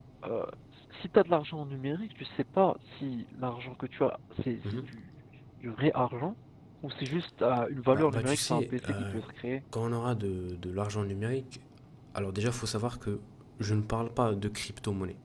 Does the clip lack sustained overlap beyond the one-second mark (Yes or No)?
No